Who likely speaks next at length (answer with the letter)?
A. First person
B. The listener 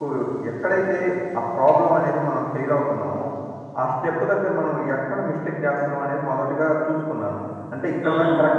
A